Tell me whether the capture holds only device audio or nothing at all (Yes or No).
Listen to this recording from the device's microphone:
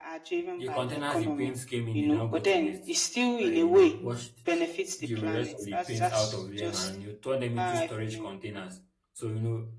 No